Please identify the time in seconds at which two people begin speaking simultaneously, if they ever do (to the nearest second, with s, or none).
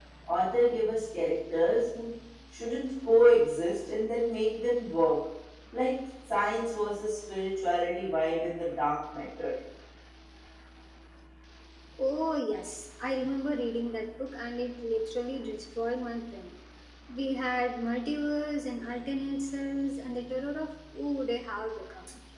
none